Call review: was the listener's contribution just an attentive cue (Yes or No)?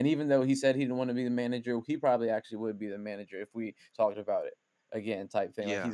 Yes